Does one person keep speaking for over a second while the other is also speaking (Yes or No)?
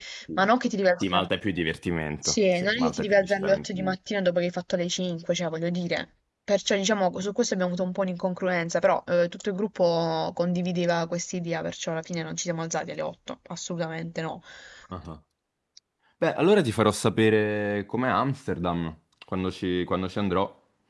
Yes